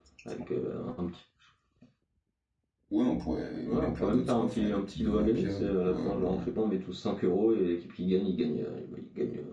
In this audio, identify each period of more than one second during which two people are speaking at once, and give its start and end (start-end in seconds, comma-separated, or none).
3.6-6.3